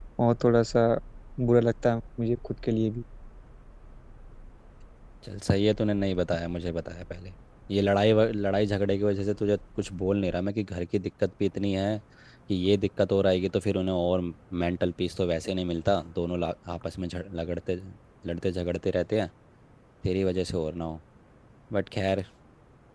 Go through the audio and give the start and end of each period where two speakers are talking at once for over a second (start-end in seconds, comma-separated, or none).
none